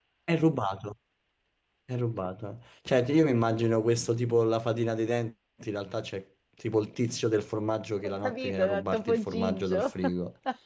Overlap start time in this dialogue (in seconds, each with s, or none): 8.0 s